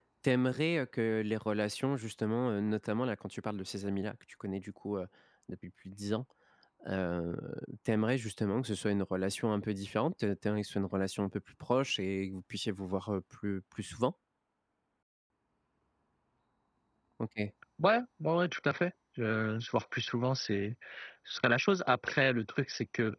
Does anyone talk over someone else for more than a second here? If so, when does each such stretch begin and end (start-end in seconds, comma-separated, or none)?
none